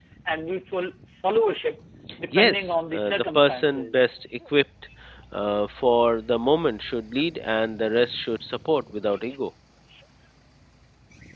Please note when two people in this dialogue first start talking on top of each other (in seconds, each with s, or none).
2.3 s